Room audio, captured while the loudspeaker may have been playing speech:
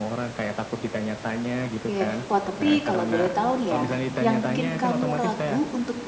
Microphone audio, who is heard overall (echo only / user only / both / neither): both